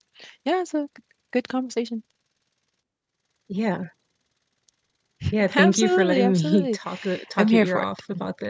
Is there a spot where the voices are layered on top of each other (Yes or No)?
Yes